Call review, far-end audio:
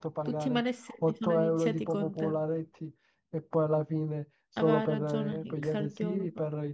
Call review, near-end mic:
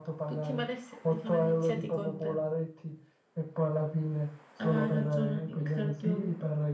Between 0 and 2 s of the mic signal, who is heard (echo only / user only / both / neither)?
echo only